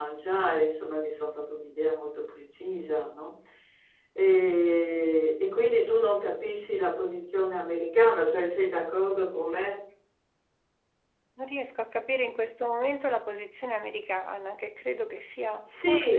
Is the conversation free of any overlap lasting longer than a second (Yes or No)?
Yes